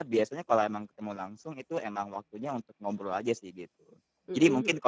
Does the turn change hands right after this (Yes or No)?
No